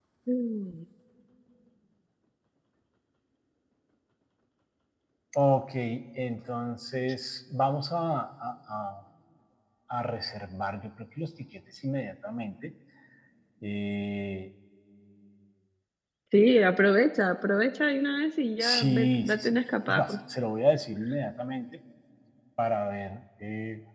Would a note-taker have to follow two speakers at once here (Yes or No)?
Yes